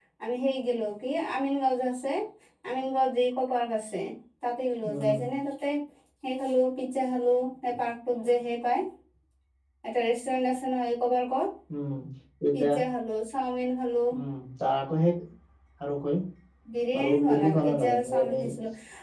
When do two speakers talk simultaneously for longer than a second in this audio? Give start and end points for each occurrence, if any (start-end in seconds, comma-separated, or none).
17.0-18.4